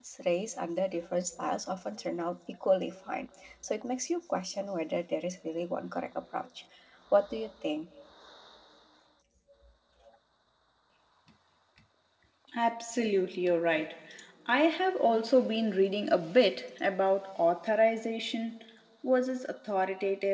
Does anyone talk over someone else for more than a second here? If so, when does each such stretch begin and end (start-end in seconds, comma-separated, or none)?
none